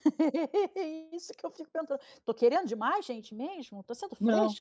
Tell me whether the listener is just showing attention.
No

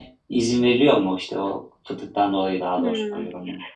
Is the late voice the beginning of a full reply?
Yes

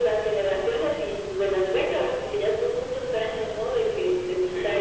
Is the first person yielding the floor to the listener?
Yes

